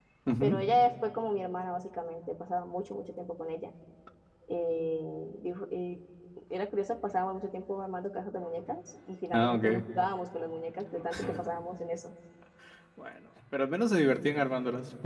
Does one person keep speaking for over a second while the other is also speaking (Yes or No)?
No